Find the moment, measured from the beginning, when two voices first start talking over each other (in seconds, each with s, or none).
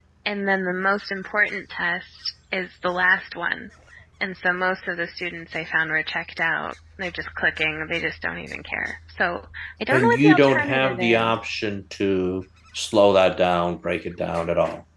9.9 s